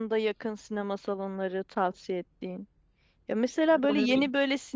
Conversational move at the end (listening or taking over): listening